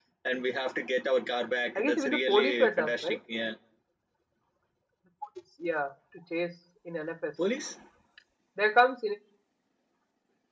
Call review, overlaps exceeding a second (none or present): present